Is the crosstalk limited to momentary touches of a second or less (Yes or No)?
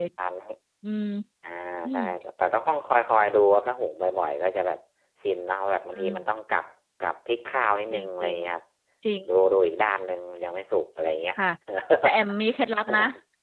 Yes